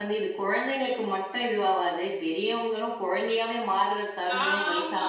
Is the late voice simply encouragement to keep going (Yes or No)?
No